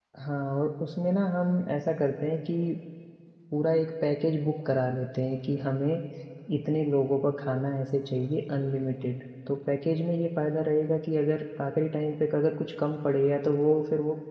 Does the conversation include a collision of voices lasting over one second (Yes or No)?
No